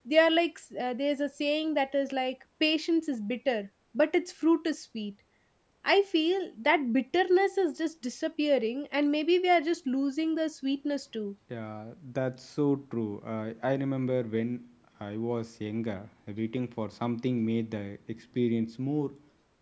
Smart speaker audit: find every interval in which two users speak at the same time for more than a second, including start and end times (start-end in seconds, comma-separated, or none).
none